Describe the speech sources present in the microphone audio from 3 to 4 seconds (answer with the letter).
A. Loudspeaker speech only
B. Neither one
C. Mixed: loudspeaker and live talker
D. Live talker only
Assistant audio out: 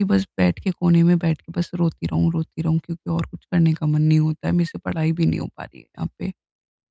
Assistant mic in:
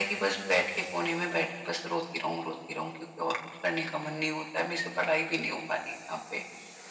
A